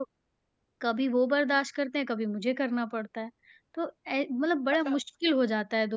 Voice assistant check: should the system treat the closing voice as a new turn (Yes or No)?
No